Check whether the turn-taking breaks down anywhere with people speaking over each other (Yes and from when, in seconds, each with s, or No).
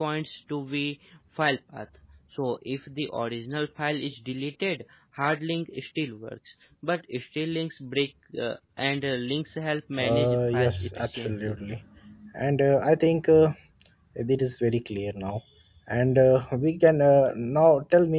Yes, from 10.0 s